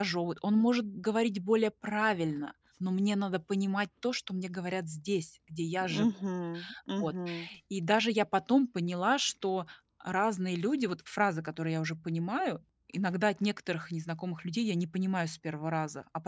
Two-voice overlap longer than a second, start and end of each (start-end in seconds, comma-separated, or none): none